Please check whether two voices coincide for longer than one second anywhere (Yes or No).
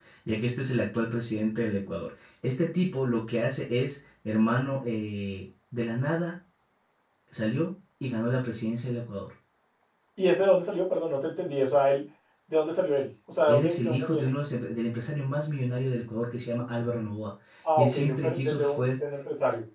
Yes